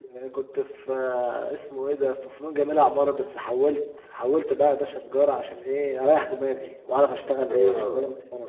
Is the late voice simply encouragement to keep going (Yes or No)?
No